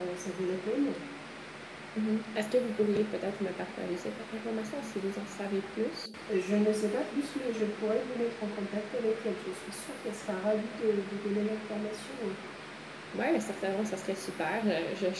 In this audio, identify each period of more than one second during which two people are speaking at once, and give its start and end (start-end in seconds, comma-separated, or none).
none